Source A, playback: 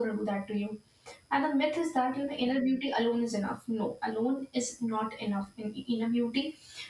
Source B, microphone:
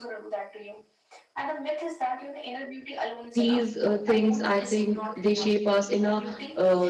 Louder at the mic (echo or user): user